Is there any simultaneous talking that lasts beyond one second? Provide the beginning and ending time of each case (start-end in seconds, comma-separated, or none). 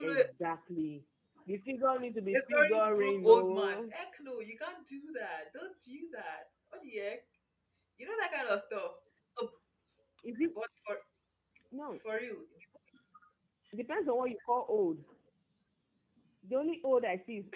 2.3-3.8